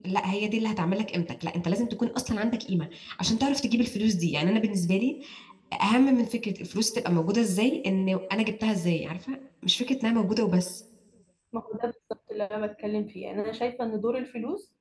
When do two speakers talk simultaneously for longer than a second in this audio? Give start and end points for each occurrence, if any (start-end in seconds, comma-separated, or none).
none